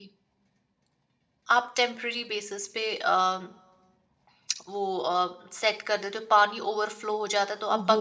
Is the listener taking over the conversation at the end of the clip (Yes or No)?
Yes